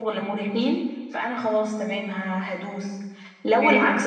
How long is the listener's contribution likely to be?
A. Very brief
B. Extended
A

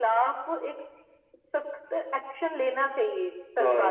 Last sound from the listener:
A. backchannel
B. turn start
B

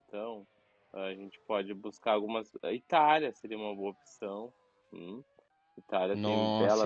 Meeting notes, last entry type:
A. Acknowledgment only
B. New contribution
B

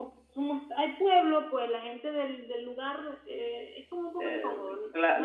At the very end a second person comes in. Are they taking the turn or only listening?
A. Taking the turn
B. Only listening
A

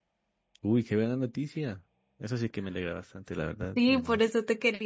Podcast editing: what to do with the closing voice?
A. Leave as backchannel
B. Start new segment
B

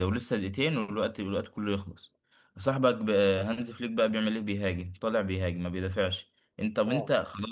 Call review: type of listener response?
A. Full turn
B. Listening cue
B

